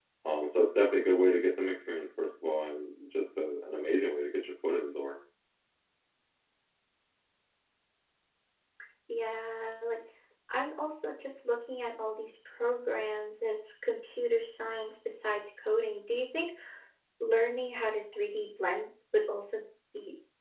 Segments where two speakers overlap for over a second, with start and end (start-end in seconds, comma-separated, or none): none